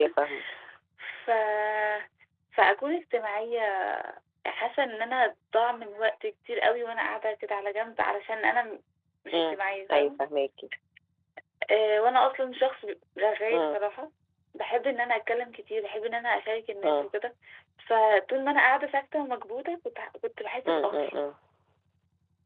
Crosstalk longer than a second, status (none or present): none